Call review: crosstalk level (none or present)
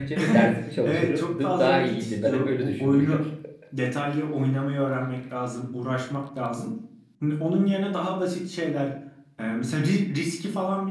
present